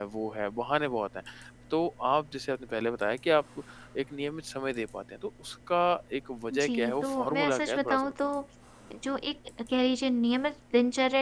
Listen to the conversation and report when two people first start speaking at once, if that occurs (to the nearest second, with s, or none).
7 s